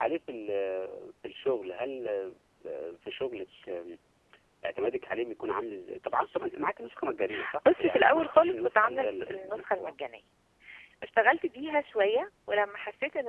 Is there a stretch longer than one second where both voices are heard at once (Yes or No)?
Yes